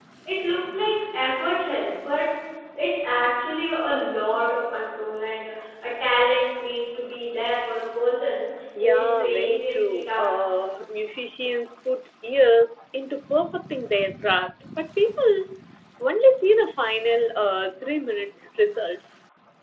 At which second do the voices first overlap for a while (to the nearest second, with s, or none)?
9 s